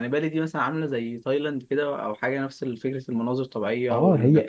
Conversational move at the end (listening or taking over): taking over